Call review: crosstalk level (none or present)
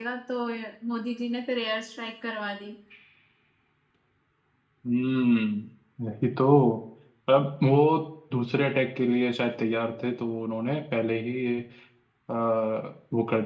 none